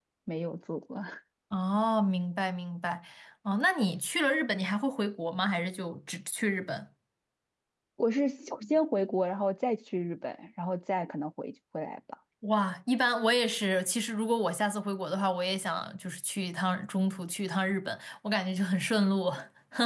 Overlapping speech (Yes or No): No